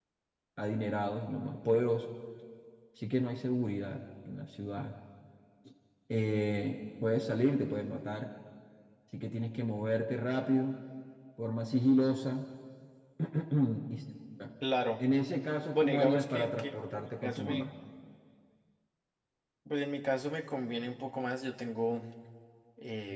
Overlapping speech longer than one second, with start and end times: 15.7-17.6

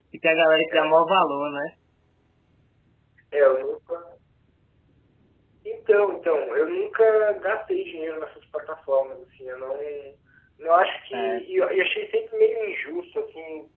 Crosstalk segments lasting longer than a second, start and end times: none

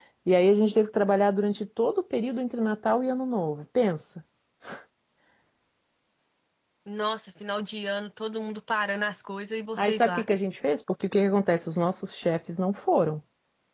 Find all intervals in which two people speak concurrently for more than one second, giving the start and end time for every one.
none

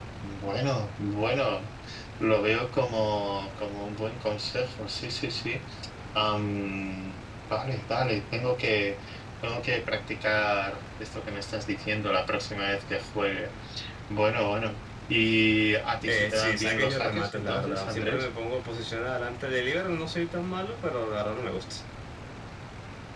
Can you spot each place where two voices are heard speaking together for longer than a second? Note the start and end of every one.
16.1-18.2

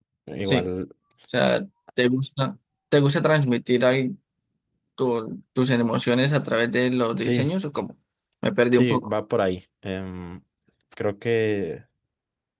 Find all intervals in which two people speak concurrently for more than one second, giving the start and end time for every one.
none

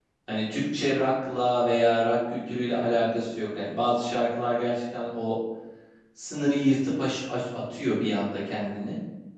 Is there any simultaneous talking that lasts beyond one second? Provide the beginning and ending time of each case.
none

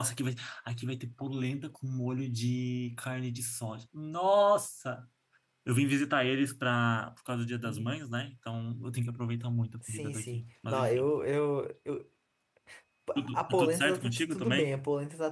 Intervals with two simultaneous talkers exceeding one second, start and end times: 9.8-11.1, 13.3-14.7

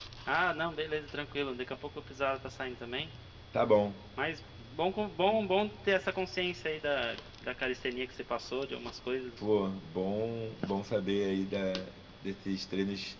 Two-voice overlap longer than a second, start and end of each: none

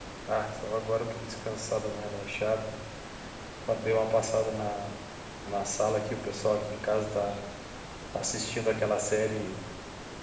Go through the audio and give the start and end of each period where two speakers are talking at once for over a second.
none

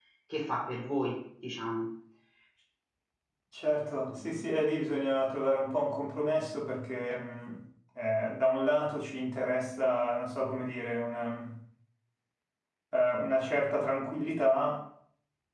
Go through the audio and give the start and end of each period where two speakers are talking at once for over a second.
none

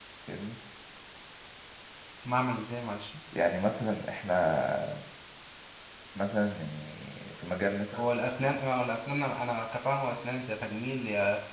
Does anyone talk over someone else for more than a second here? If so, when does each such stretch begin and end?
none

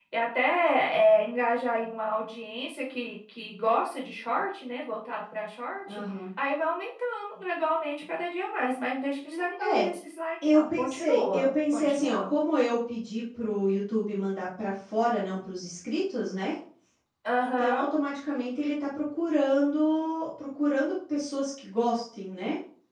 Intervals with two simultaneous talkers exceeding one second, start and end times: 10.4-12.3

